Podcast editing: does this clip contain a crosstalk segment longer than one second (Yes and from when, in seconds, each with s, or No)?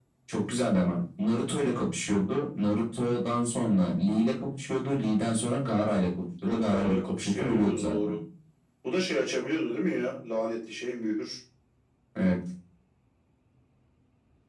Yes, from 6.4 s